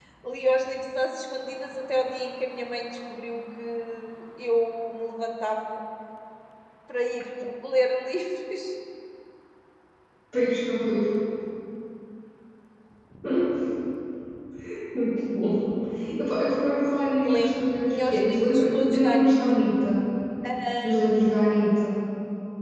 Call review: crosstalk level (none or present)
present